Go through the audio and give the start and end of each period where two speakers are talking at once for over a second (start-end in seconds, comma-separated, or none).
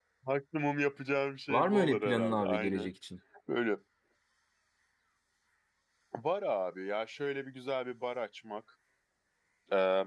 1.5-2.9